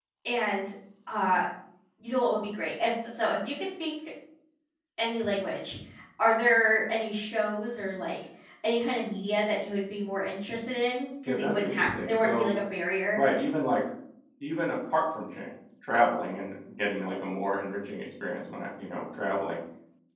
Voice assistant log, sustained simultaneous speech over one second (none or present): present